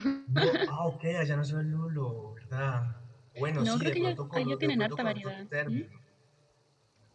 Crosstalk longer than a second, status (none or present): present